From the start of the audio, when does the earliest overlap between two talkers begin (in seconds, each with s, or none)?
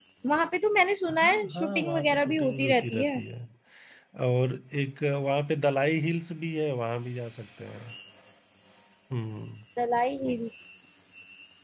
1.1 s